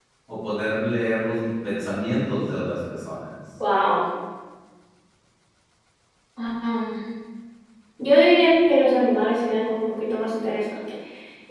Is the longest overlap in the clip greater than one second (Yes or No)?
No